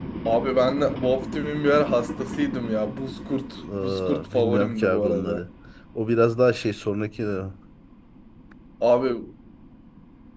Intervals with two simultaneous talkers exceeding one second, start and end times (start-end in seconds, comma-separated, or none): 3.6-5.4